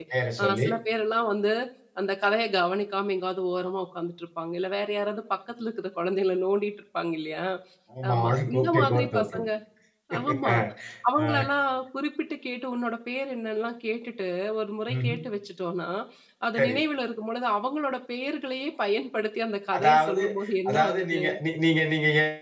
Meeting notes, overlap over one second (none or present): present